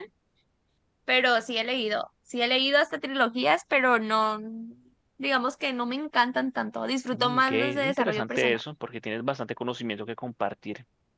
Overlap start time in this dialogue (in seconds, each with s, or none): 7.1 s